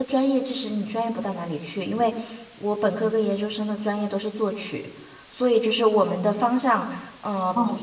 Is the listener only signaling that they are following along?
Yes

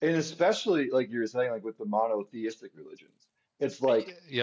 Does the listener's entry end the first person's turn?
No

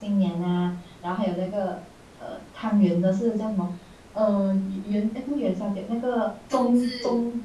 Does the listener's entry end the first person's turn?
No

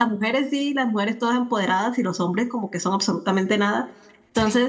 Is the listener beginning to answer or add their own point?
No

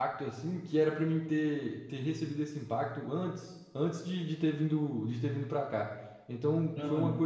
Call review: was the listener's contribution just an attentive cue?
Yes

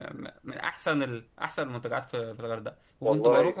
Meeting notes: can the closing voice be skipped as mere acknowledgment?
Yes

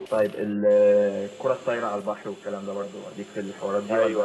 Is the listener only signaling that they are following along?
No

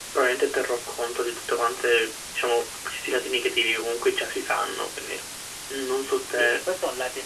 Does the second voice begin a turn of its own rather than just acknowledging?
Yes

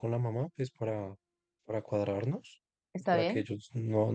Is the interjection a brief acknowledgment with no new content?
Yes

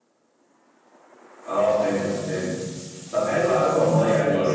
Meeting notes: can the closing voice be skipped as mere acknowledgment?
Yes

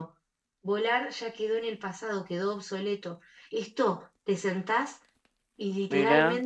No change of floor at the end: Yes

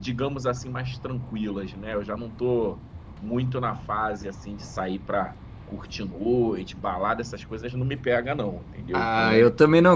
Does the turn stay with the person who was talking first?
No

